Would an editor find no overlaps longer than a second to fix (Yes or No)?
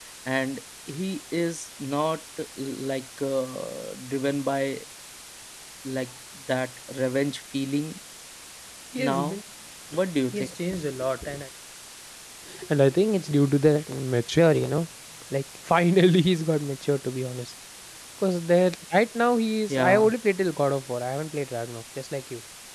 Yes